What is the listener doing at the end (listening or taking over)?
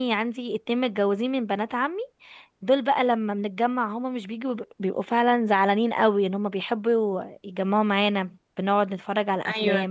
taking over